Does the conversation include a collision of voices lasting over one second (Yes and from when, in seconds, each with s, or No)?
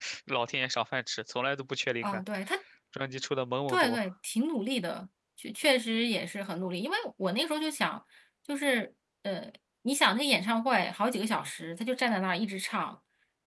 No